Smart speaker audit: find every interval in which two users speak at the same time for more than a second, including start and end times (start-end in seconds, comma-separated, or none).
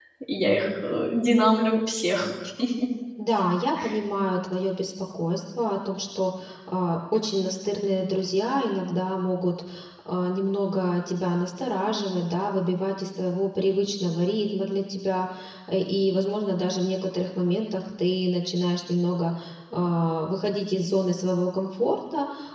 none